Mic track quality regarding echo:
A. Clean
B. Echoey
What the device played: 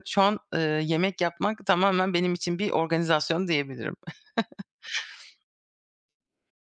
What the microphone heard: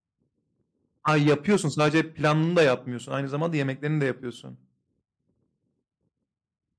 A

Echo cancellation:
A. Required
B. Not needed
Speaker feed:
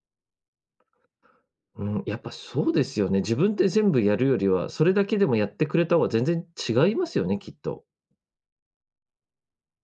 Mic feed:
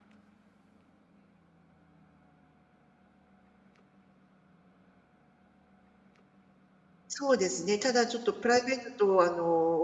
B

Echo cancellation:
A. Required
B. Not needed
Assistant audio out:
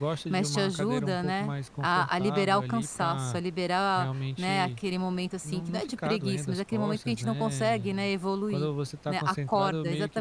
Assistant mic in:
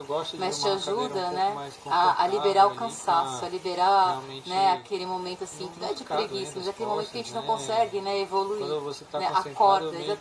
A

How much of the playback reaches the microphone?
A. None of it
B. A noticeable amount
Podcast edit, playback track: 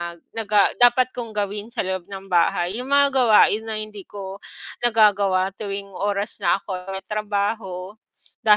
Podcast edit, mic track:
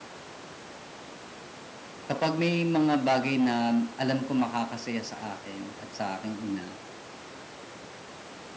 A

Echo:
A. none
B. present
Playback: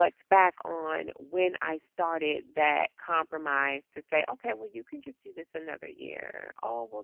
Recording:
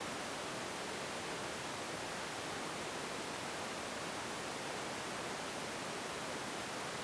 A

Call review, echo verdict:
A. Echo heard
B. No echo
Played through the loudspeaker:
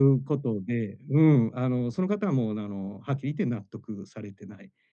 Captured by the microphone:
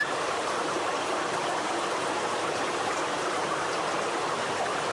B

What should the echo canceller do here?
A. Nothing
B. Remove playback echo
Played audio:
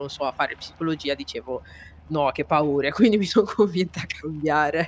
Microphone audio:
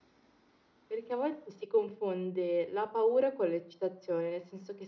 A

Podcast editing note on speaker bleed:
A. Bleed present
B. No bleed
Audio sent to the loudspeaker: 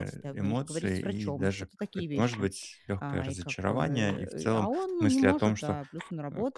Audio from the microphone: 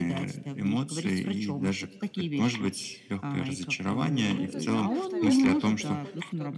A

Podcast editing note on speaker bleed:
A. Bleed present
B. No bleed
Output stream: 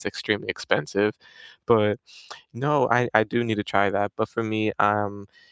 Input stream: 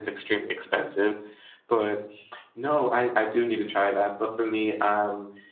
A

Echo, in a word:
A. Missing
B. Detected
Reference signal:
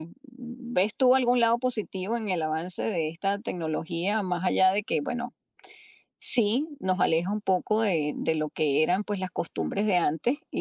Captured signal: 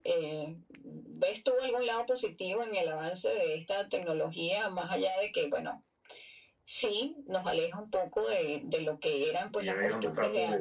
B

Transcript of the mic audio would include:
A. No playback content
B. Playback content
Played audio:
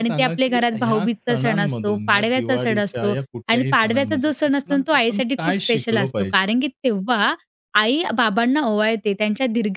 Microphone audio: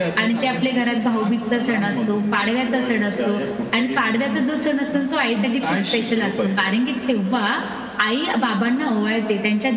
B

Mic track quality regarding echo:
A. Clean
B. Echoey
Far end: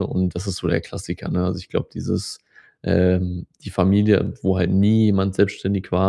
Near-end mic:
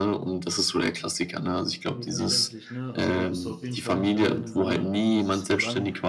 B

